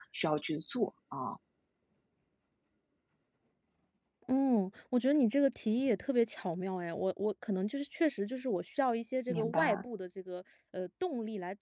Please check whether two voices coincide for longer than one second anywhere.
No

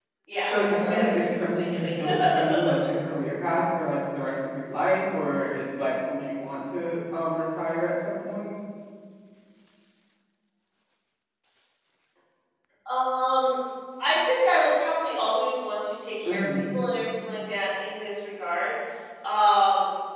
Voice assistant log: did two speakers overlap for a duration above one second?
Yes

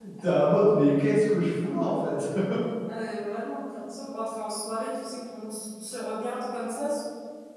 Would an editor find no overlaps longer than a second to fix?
Yes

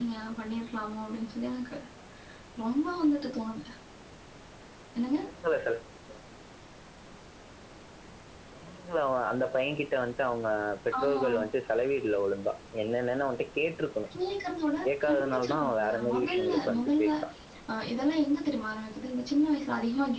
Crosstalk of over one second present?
Yes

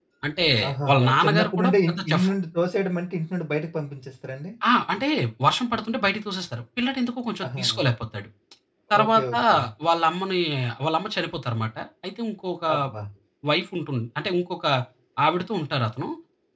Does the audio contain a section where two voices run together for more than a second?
Yes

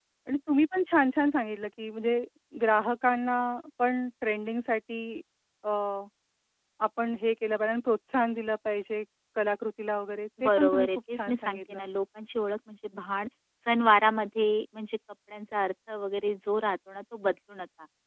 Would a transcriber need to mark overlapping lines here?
Yes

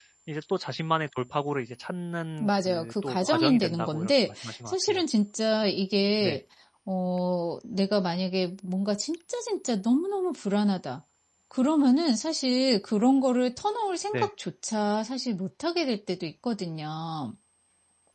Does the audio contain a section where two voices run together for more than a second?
Yes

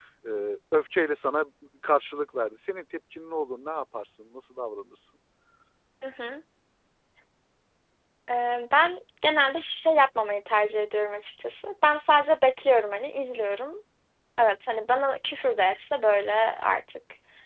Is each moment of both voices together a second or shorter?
Yes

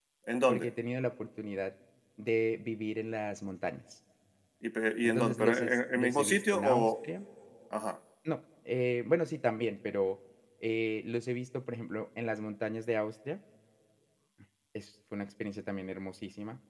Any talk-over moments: Yes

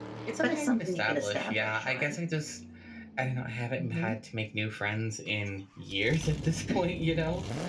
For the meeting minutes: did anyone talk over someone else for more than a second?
Yes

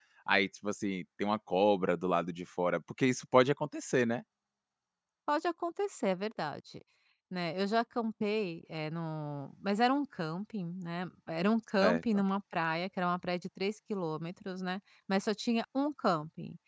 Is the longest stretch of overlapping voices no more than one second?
Yes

